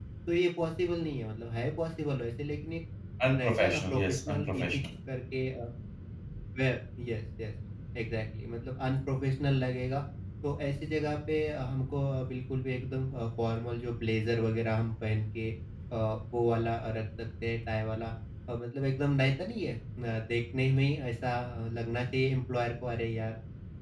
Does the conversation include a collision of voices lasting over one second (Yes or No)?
Yes